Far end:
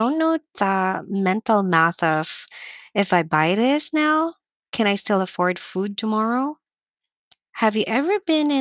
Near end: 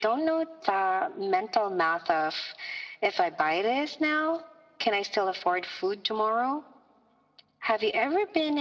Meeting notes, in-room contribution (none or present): none